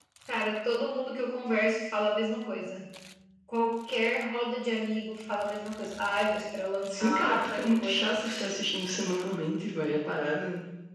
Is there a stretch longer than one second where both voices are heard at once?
Yes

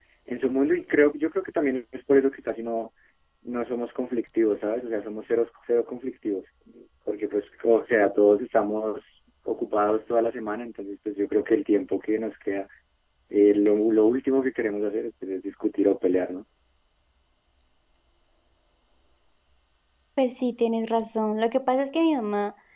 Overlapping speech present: No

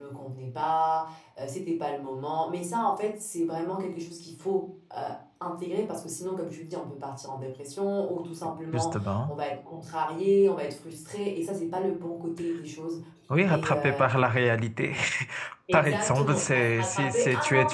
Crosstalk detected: Yes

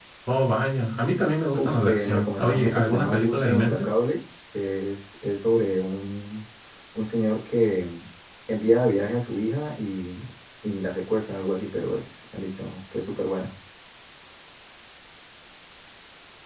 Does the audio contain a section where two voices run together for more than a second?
Yes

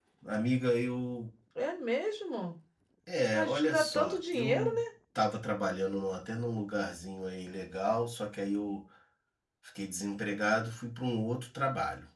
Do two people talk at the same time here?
Yes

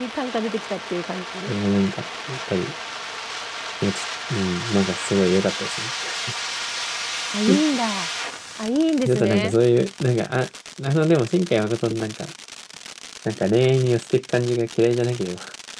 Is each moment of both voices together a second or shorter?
Yes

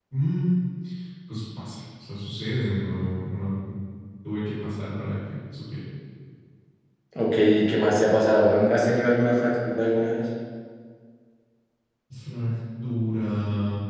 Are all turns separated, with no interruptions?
Yes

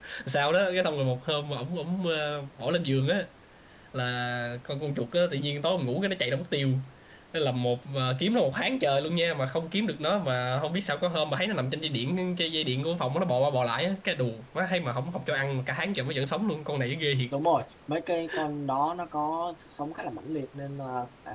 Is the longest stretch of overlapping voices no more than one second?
Yes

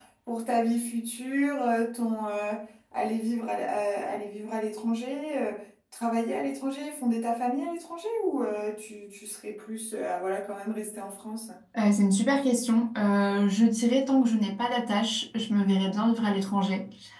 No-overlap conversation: Yes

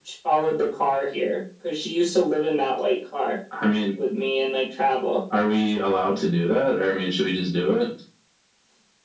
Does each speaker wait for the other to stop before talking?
Yes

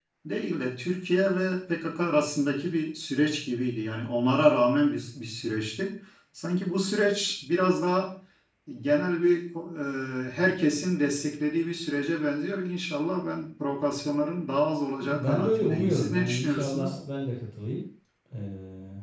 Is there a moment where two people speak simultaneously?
Yes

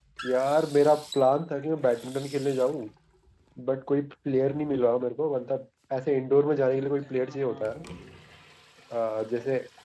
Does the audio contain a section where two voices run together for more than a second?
Yes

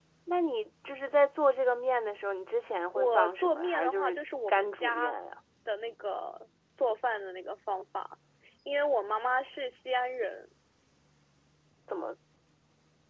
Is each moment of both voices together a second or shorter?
No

